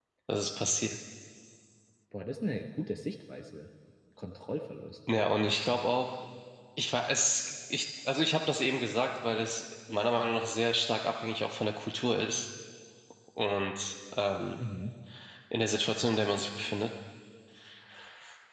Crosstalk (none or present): none